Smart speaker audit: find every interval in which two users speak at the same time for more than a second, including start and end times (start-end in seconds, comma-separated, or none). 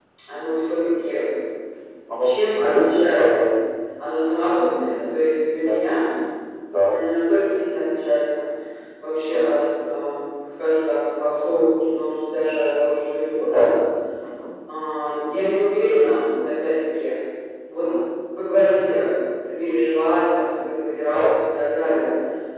2.2-3.5